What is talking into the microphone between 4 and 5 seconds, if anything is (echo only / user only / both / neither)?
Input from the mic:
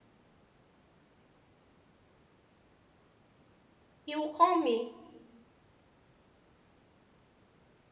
user only